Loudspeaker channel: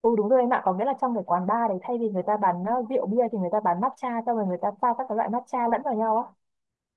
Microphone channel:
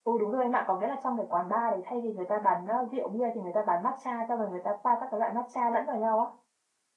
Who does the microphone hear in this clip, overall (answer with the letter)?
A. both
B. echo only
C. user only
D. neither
B